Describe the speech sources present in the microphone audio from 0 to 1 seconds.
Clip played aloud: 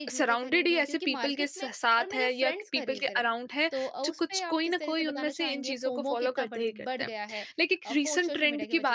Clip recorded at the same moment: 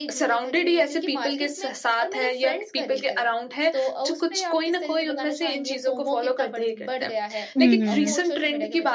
echo only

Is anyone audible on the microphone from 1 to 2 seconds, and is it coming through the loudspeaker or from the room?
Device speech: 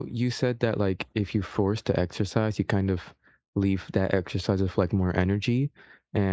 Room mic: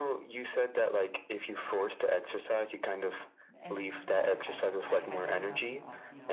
echo only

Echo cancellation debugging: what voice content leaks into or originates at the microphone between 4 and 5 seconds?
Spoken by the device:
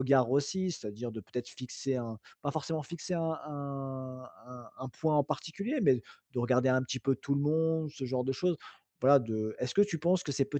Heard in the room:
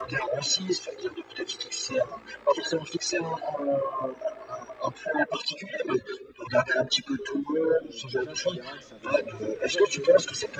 echo only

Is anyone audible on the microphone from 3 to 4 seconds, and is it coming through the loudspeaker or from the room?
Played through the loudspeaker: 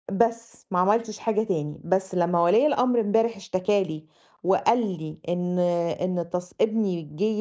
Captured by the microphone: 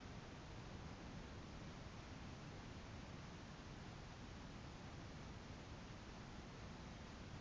neither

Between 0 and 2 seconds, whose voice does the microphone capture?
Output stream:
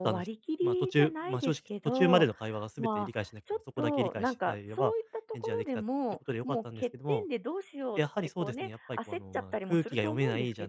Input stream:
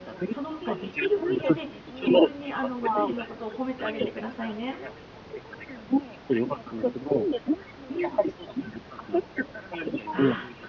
both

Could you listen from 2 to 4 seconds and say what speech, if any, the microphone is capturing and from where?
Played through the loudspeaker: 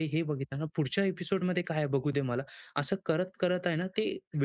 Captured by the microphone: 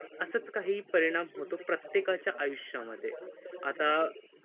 both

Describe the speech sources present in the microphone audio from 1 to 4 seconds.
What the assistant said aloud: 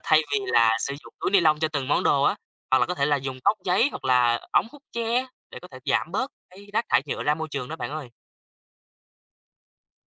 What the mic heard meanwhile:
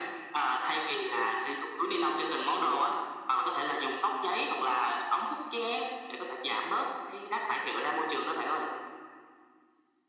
echo only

